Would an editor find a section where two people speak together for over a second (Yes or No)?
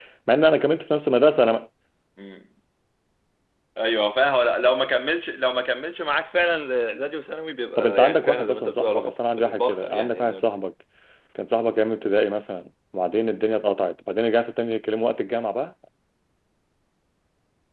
Yes